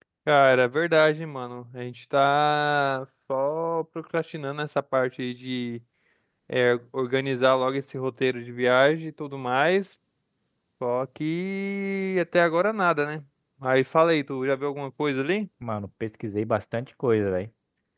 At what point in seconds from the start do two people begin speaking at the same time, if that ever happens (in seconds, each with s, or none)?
none